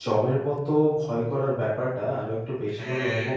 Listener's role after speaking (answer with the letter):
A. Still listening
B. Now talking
A